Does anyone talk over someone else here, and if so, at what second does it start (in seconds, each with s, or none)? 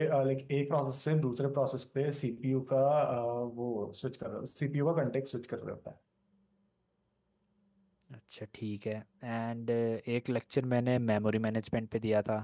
none